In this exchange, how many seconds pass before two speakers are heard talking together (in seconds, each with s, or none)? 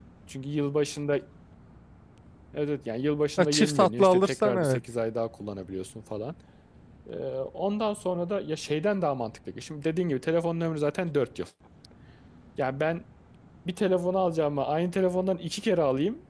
3.4 s